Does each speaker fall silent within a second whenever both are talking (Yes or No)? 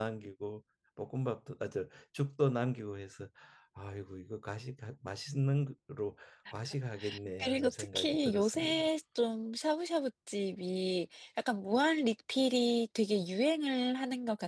No